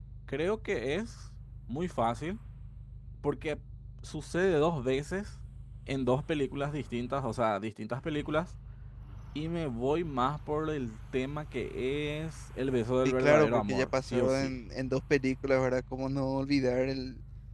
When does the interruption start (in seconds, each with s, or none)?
13.0 s